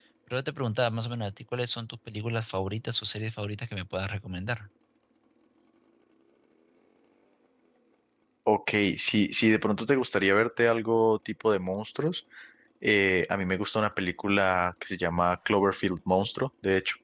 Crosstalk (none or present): none